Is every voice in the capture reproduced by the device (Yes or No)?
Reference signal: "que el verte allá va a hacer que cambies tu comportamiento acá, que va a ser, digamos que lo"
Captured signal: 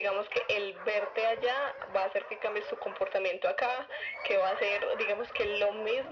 Yes